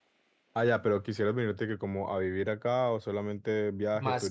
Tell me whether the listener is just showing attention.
No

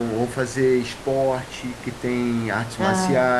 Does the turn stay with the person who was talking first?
Yes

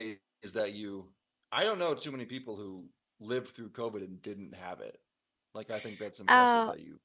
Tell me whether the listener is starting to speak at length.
Yes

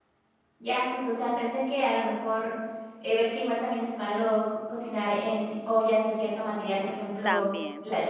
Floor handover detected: No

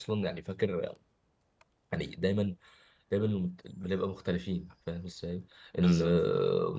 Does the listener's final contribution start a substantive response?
No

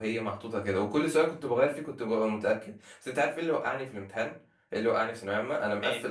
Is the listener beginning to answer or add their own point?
No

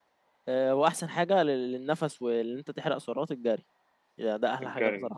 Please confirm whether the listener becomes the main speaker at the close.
No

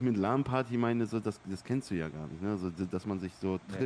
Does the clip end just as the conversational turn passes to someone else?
No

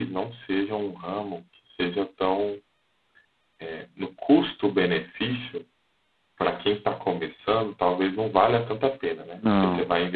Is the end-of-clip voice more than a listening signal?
No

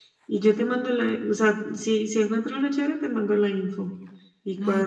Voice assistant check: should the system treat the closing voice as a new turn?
Yes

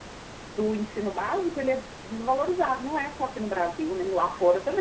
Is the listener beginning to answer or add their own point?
Yes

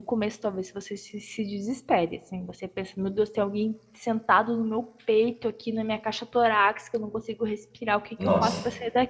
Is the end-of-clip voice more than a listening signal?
No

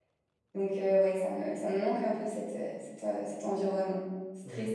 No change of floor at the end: No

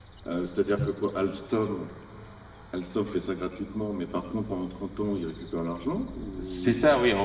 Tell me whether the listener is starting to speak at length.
Yes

